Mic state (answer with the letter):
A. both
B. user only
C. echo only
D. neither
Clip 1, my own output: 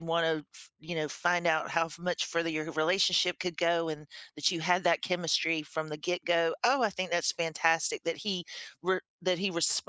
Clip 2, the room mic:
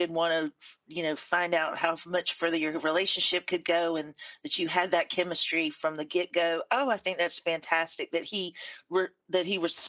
C